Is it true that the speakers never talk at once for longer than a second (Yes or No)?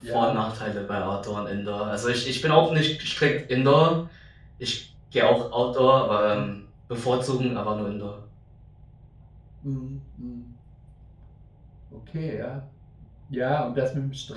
Yes